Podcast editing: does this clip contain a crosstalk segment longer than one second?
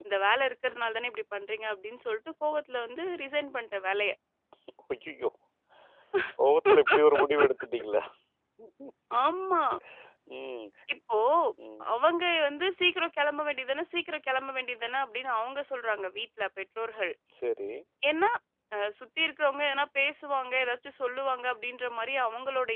No

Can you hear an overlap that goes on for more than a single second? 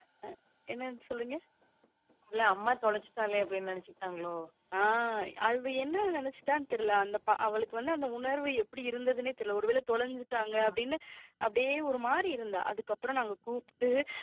No

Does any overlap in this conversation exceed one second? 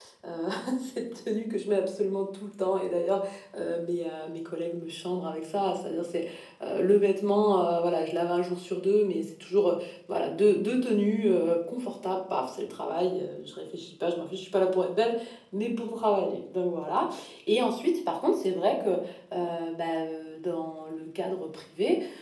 No

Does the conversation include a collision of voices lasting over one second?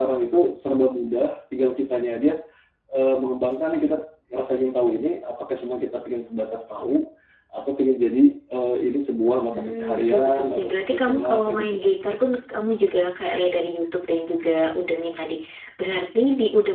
Yes, from 9.5 s

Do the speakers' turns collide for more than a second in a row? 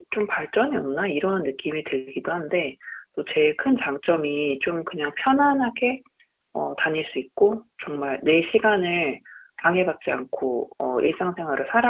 No

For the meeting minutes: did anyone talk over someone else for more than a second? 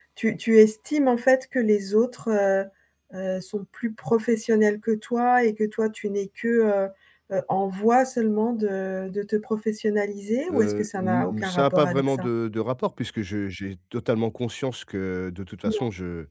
Yes, from 10.5 s

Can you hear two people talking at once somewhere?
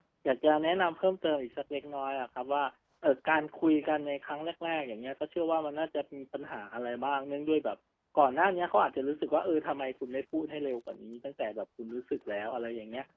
No

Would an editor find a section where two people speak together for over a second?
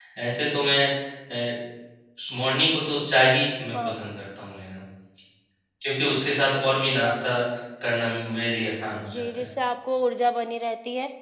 No

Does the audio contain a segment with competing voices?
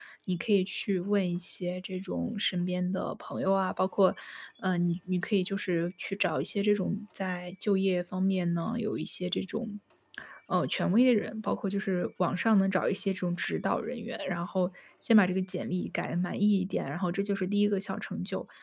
No

